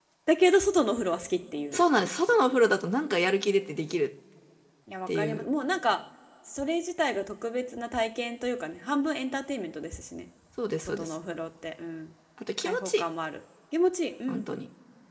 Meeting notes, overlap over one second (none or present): none